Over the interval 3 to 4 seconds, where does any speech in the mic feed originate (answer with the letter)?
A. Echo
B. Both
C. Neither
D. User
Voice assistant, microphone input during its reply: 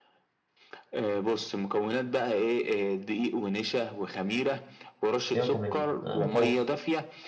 A